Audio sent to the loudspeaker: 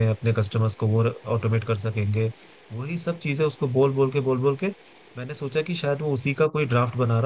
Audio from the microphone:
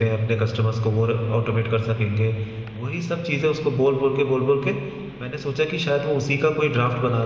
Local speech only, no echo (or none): none